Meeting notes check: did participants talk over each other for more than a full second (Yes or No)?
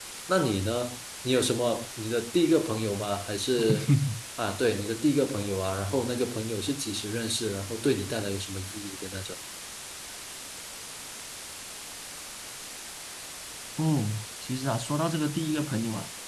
No